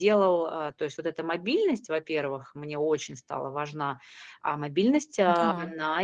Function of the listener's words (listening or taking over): listening